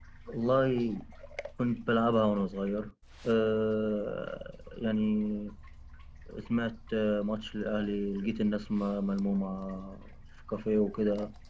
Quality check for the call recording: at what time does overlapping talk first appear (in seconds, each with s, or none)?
none